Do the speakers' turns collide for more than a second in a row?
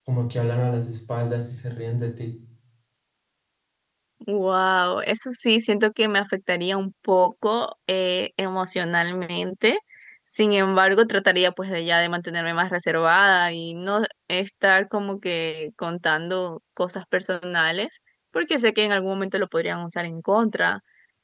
No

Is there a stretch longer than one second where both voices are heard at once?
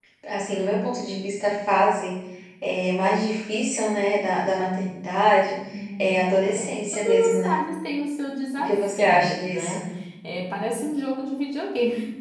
Yes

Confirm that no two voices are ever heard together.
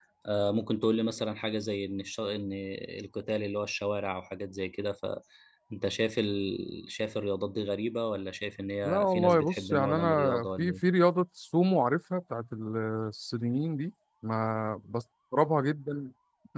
No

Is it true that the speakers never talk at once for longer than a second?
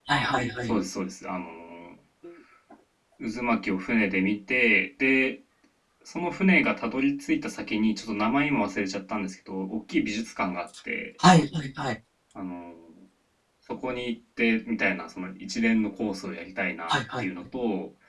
Yes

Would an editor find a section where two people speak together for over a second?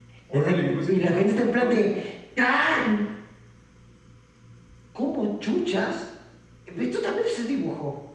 Yes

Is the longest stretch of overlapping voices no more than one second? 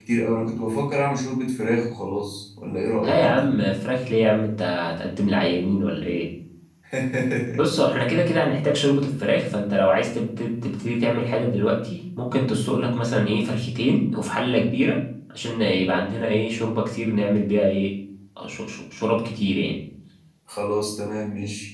Yes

